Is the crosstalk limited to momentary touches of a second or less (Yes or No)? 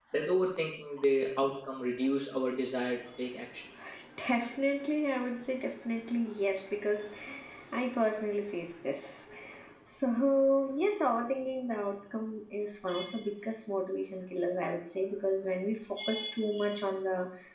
Yes